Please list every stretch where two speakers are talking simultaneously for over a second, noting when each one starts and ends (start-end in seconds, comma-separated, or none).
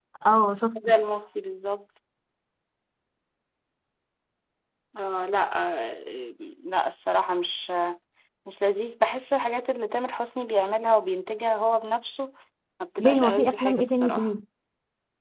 13.0-14.3